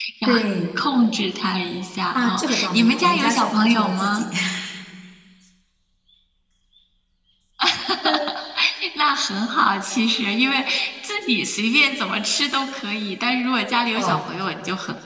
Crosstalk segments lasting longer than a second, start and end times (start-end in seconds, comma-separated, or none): 2.1-4.2